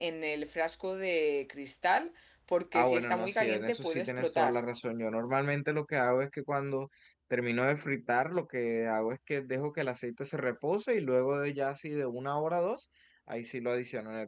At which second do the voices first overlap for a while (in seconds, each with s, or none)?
2.7 s